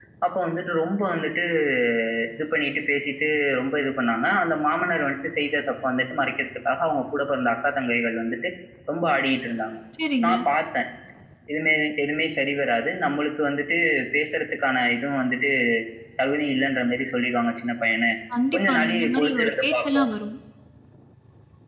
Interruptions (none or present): present